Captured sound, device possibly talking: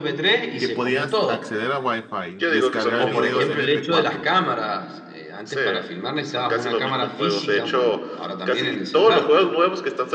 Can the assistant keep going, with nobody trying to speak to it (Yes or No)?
No